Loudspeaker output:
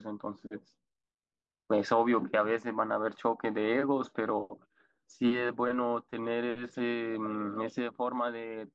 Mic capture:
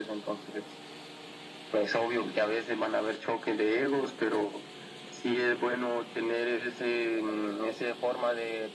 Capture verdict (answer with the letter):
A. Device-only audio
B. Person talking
A